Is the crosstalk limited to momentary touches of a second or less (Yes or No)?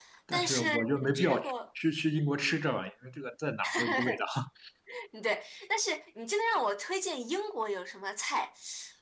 No